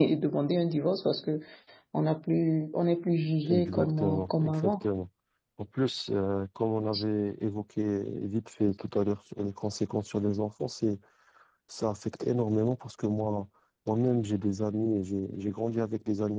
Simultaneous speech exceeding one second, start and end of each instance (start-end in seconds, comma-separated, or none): 3.5-4.9